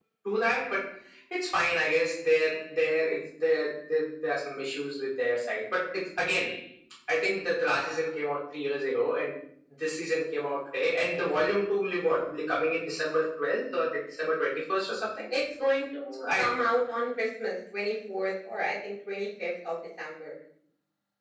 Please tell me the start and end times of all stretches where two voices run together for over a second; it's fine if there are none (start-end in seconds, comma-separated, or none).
none